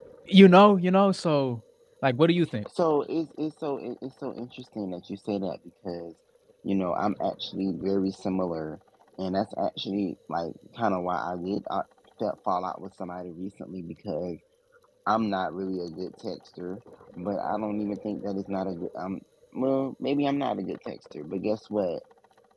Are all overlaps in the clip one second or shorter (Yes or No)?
Yes